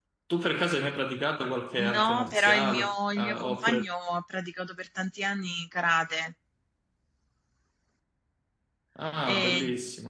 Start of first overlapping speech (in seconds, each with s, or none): 1.9 s